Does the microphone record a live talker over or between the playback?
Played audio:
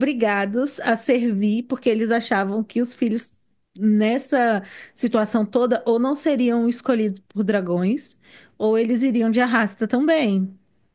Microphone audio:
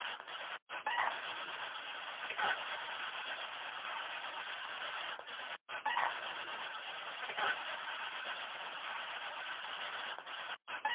No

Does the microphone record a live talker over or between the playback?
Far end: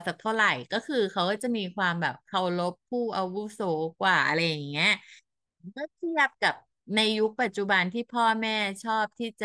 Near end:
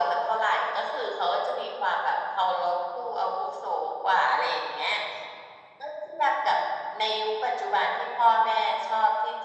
No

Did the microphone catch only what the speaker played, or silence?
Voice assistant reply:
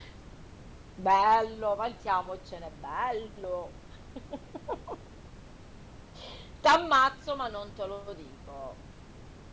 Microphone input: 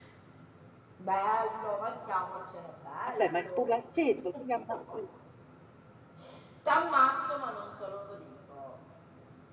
No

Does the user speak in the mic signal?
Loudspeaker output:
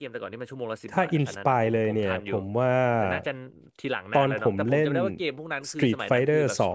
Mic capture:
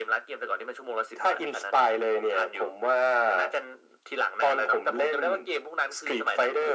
No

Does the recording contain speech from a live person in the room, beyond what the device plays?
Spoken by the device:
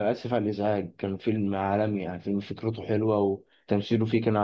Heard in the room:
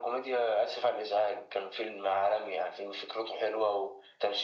No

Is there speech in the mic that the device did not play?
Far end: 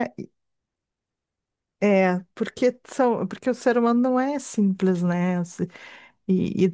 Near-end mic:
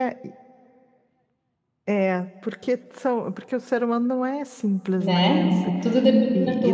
Yes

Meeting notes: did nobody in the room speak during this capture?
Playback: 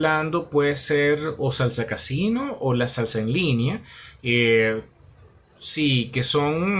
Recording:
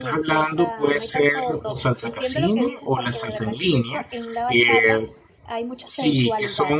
No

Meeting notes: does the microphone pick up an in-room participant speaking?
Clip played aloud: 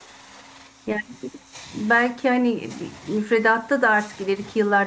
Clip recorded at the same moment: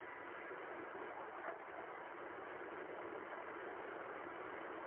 No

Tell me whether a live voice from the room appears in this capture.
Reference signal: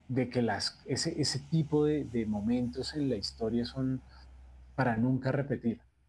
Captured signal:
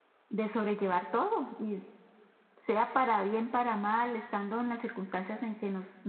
Yes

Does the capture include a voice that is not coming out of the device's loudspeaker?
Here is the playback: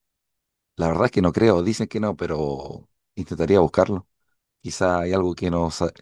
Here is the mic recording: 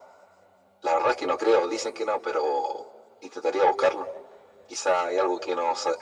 No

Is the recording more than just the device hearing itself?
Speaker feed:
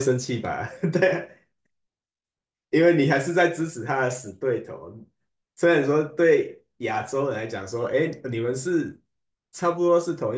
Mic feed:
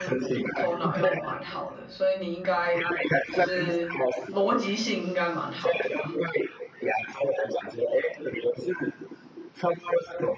Yes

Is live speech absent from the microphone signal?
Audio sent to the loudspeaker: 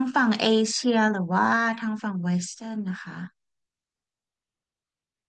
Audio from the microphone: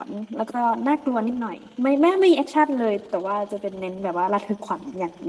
No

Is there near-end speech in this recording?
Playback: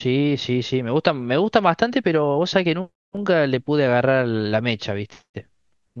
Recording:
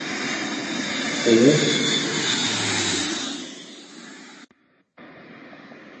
Yes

